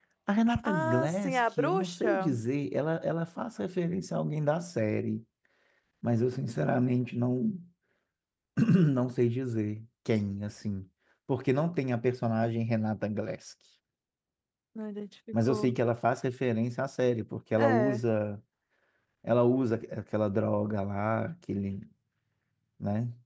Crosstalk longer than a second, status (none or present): present